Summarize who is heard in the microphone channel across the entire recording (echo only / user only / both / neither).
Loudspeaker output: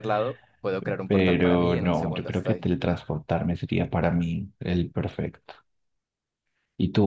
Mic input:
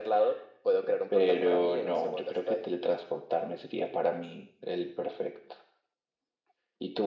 echo only